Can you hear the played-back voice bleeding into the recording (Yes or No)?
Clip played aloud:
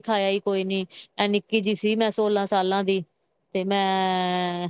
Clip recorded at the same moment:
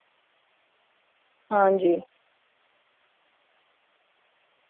No